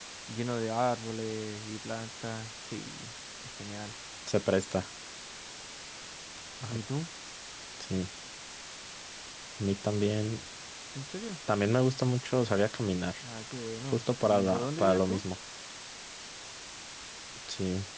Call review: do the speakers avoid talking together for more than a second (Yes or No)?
No